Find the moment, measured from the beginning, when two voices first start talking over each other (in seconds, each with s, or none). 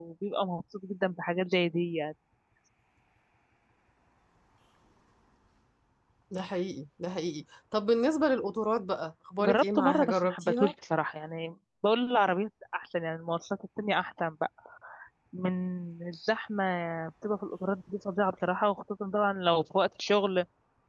9.4 s